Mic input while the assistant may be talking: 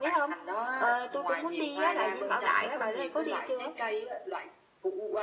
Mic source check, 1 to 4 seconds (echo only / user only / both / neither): both